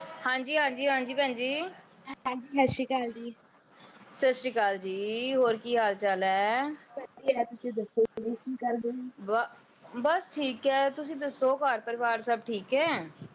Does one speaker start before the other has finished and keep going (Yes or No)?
No